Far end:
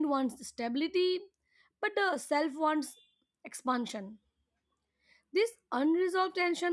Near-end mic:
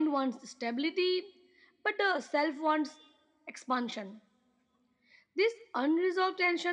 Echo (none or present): present